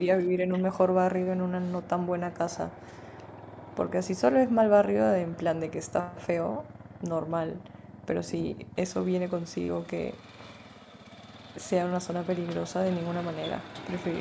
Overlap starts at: none

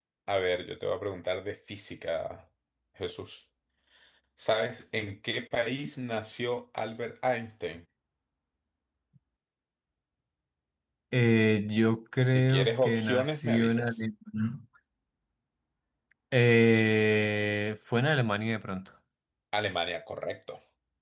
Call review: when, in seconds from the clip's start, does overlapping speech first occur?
12 s

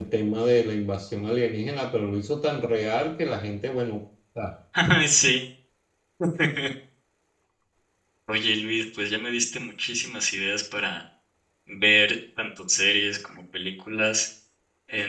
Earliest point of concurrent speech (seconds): none

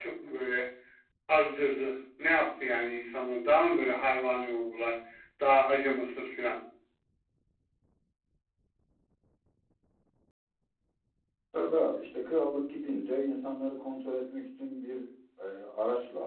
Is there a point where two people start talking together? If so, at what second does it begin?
none

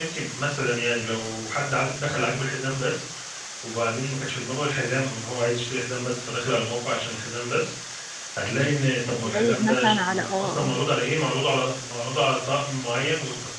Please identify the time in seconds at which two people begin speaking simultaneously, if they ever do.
9 s

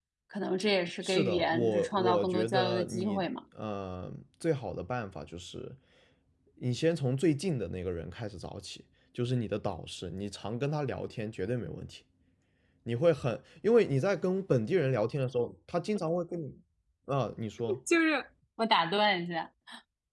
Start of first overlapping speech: 1 s

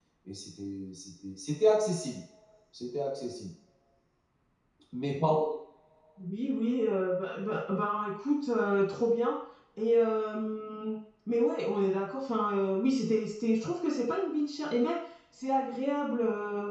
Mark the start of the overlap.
none

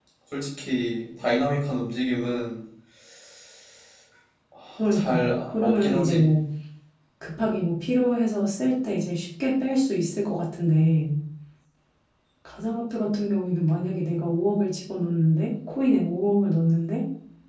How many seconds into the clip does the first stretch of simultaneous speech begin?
5 s

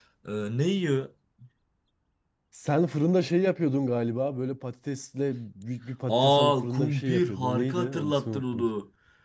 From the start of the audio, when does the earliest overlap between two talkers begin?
6 s

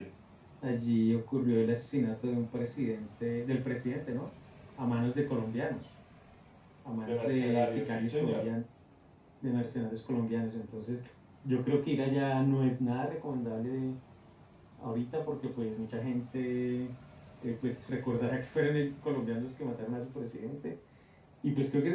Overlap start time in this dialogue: 7 s

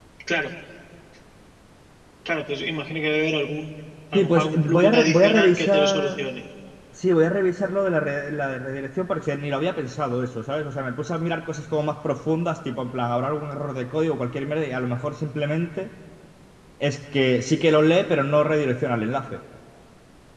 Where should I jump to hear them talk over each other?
4 s

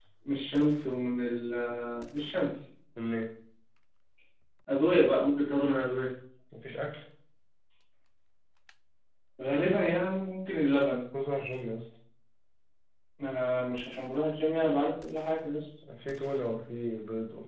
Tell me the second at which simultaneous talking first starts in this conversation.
none

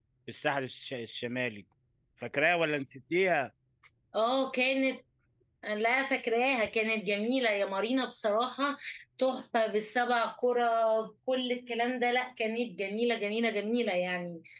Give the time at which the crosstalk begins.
none

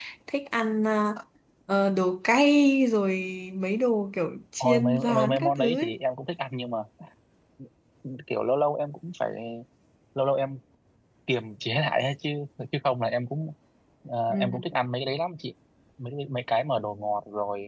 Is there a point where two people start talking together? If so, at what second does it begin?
5 s

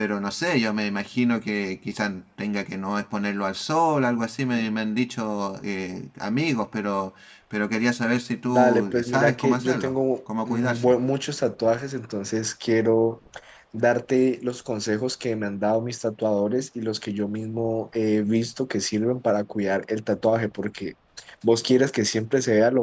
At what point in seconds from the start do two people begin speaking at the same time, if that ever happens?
8 s

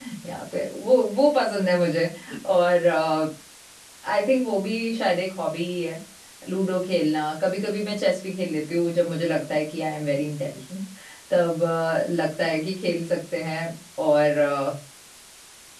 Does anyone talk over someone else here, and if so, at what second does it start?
none

